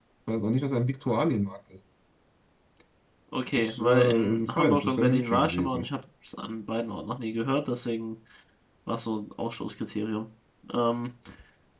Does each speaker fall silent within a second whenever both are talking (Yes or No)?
No